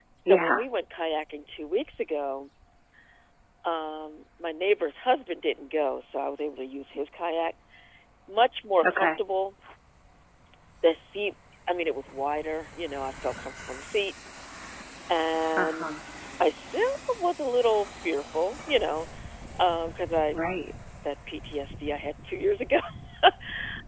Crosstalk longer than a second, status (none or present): none